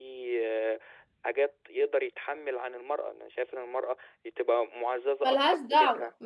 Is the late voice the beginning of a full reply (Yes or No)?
Yes